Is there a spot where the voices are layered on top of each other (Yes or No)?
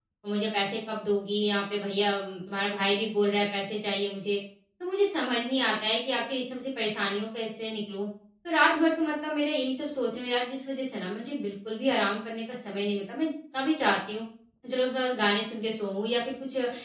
No